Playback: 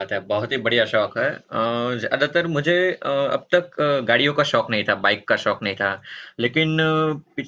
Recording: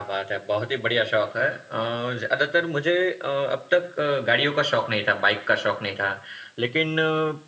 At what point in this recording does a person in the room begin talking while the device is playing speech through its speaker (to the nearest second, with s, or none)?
none